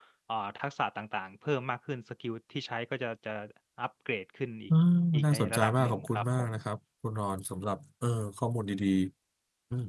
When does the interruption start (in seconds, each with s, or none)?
5.3 s